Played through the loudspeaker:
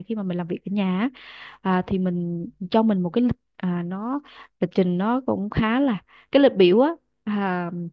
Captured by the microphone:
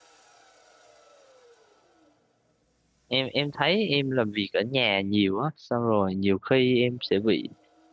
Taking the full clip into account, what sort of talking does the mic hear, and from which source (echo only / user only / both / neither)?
user only